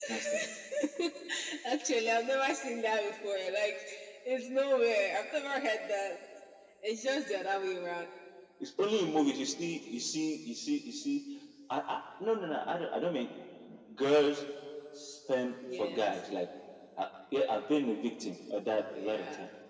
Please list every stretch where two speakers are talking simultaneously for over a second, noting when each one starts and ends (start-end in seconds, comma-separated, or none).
none